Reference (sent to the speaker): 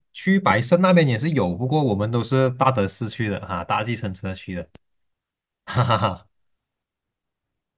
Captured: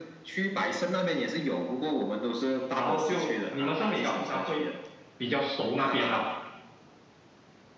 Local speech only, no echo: 然后就你们圣米高通常会比较熟那边啦。

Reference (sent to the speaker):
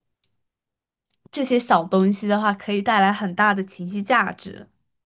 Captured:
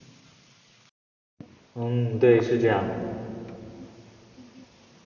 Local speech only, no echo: 嗯，对，是这样的。

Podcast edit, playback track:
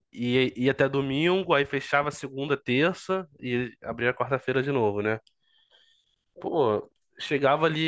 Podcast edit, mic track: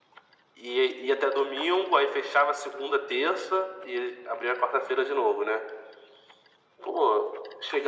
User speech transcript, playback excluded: none

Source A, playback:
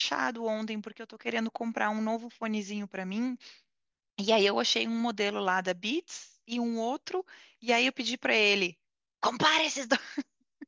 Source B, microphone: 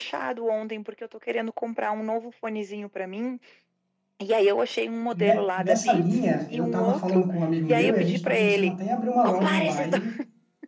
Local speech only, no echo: Ne- Nessa linha, eu estava falando com um amigo meu e a gente está pensando até em abrir uma loja online

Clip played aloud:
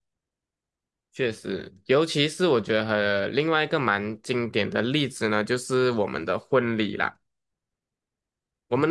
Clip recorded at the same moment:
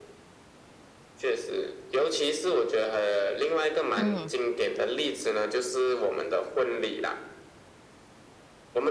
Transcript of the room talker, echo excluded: 嗯，

